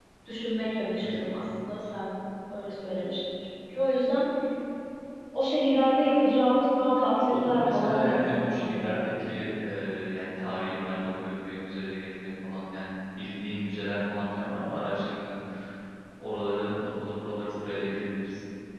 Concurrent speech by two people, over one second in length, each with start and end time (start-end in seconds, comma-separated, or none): 7.3-9.0